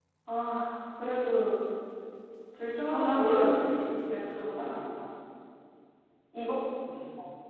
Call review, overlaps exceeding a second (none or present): present